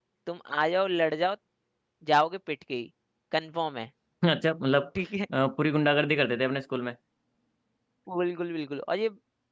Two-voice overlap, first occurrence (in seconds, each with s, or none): none